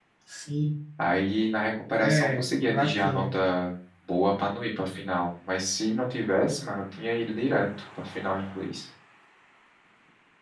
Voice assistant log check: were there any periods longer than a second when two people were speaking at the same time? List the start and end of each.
2.0-3.2

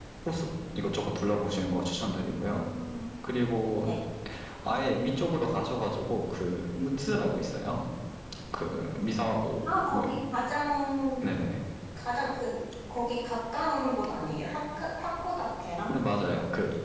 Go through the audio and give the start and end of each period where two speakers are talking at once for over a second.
none

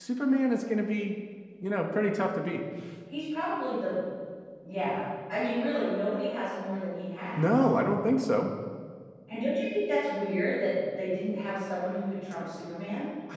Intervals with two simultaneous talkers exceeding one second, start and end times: none

